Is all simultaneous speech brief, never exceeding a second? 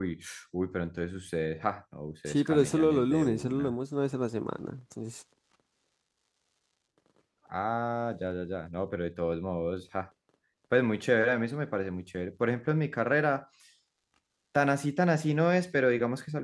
No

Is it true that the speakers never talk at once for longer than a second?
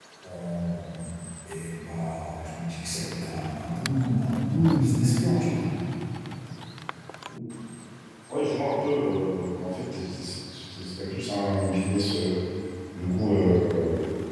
Yes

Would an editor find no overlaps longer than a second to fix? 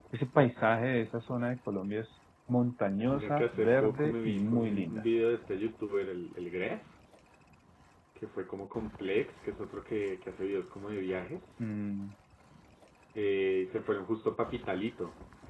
No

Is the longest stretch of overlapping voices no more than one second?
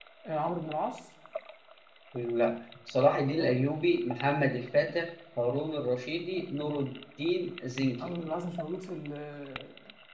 Yes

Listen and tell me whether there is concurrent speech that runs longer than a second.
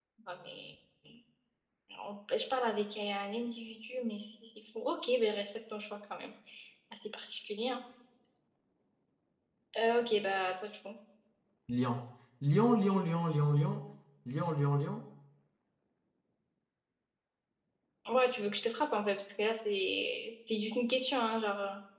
No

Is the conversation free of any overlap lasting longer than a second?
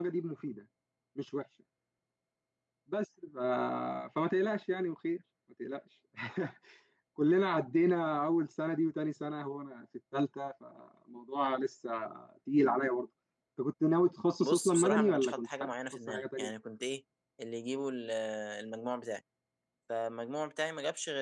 No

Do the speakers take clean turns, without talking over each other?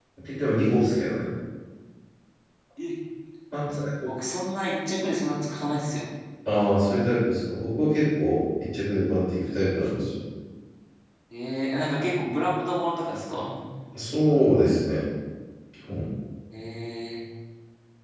Yes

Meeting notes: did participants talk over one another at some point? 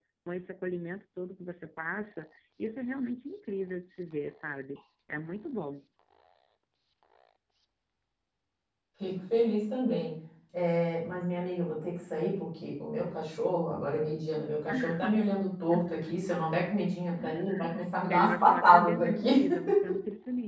Yes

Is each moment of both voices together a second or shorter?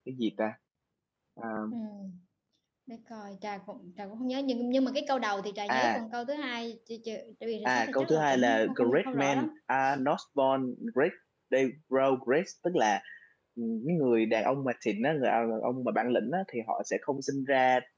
No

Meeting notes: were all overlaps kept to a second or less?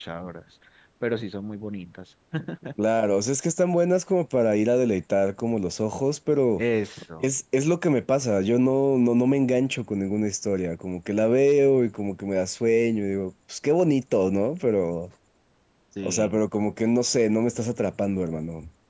Yes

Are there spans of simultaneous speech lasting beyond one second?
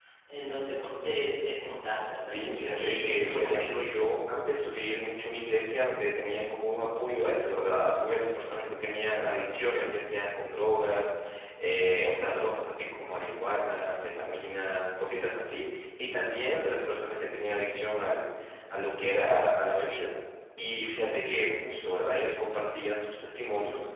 Yes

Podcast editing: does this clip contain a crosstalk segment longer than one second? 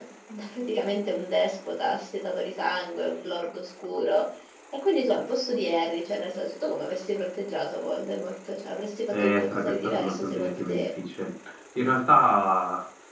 Yes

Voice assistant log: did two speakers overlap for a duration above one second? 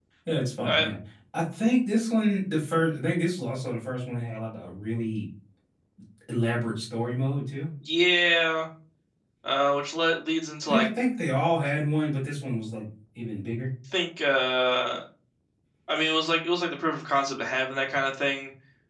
No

